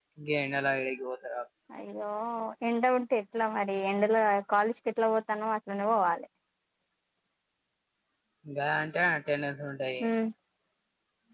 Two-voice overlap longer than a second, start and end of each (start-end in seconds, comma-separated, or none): none